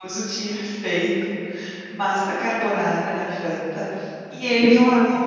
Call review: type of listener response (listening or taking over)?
listening